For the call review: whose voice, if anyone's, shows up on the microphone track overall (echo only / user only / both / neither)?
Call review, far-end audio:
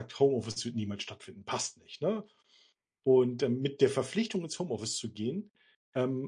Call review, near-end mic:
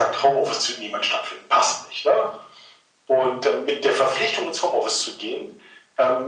echo only